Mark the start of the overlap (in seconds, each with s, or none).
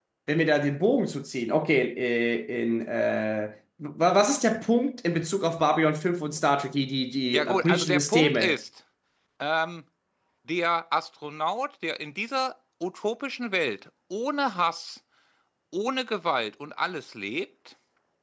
7.3 s